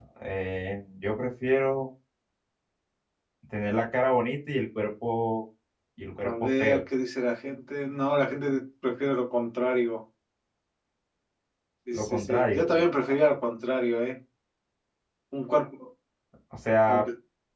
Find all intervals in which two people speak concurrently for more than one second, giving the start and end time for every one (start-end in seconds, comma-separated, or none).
11.9-13.1